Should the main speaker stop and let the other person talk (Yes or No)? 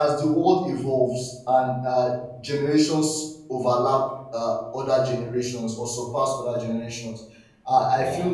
No